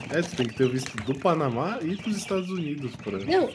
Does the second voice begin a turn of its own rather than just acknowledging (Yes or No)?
Yes